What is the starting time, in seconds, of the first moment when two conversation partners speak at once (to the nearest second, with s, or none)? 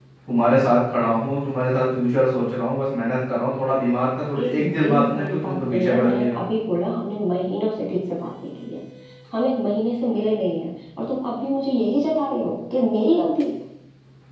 4 s